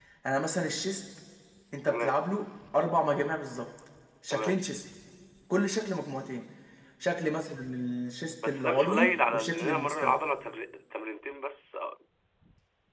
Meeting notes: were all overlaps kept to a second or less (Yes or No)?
No